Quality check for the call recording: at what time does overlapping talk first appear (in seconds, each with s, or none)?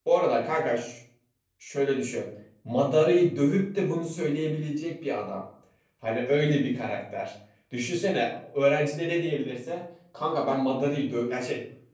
none